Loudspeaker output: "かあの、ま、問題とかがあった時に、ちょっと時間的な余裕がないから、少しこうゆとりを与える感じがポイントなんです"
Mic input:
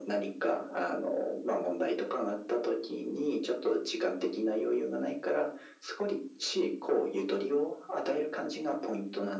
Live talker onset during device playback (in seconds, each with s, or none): none